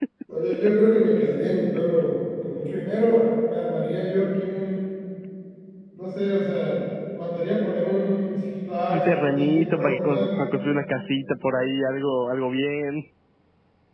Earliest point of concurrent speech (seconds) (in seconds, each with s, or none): 8.9 s